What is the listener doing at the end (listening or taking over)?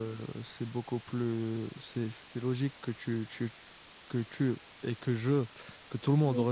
listening